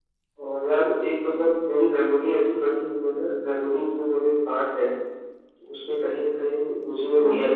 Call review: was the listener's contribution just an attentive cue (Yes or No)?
No